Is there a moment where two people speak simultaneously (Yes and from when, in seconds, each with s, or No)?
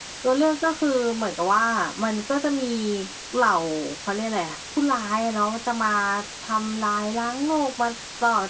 No